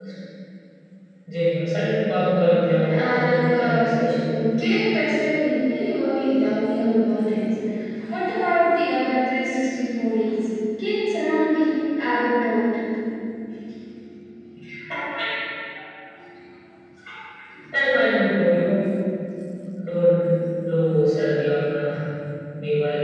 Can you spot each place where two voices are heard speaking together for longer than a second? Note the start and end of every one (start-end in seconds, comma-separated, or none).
2.9-4.2